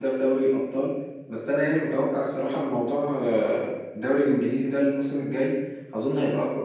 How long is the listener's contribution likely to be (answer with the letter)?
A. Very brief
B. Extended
A